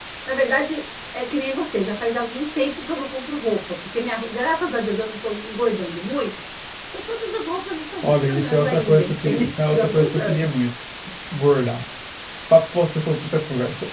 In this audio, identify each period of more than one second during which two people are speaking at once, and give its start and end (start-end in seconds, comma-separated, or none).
8.1-10.5